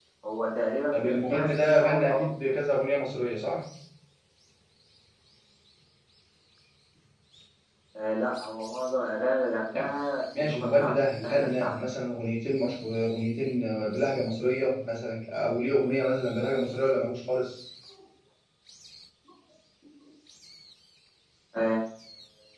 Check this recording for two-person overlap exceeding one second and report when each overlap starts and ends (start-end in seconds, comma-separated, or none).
0.9-2.5, 10.4-11.7